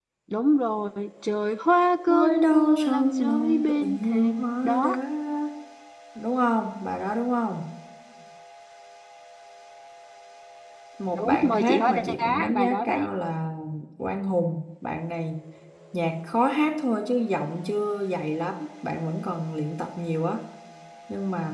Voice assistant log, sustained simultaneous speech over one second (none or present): present